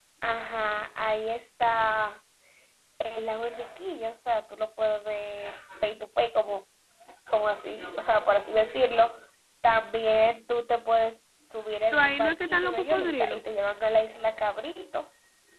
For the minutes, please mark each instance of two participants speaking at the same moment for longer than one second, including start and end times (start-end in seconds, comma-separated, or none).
11.9-13.4